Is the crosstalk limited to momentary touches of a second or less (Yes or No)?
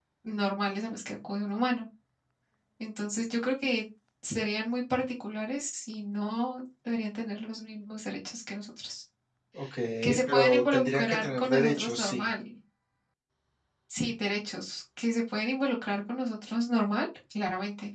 No